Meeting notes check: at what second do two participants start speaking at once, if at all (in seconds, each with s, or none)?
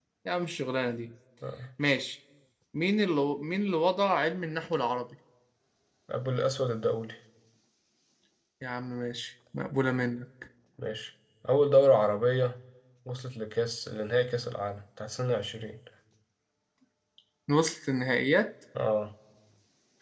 none